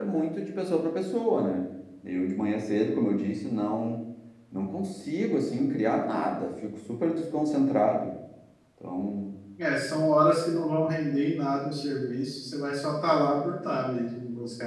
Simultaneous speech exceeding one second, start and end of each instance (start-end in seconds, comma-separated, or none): none